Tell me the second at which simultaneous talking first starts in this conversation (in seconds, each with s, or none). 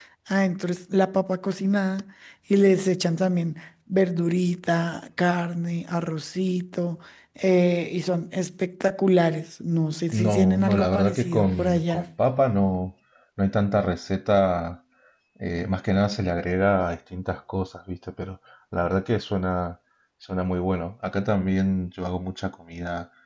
10.1 s